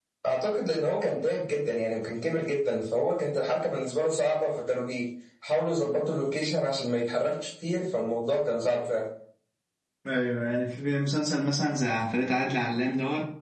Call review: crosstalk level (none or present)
none